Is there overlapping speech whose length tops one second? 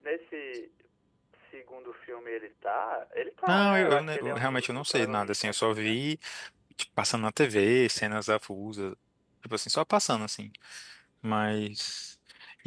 Yes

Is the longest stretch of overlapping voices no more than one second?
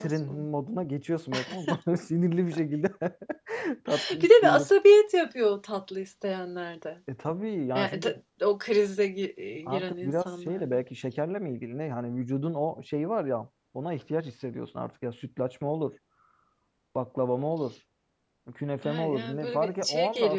No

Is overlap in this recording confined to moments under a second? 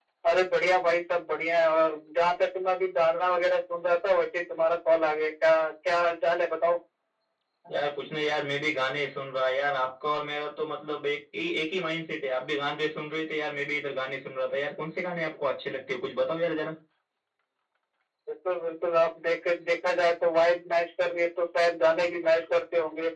Yes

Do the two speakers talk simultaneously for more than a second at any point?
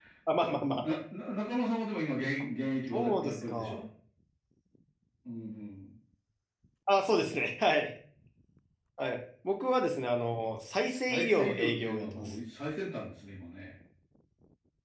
Yes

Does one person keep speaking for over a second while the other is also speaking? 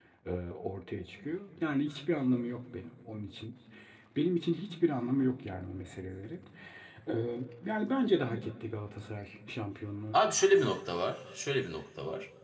No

